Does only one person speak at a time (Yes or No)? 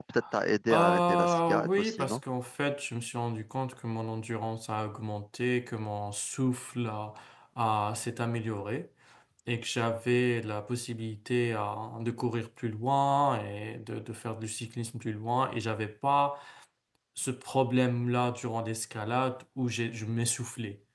No